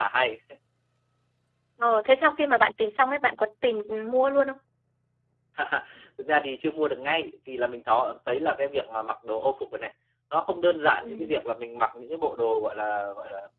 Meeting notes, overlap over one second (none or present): none